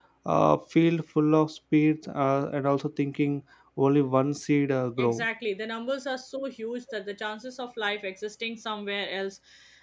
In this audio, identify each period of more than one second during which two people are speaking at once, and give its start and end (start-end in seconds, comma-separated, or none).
none